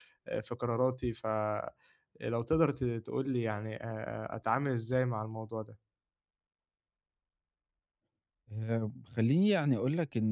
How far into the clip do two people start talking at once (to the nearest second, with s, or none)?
none